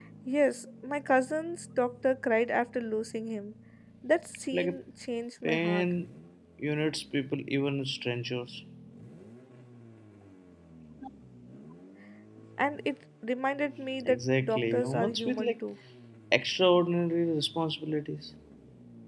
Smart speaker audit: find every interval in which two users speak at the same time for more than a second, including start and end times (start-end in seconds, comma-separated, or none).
14.0-15.5